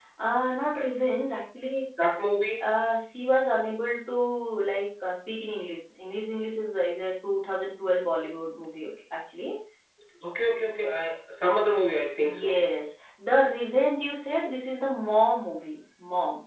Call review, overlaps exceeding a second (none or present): none